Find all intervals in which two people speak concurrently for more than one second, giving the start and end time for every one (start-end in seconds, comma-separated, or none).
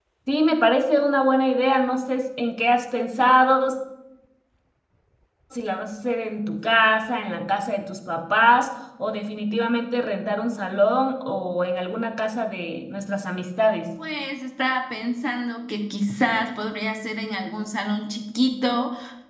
none